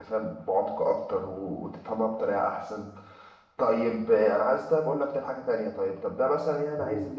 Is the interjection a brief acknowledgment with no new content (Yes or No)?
Yes